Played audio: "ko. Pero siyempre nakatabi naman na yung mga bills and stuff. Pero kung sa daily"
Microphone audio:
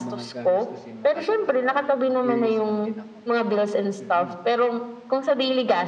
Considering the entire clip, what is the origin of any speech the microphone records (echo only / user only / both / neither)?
both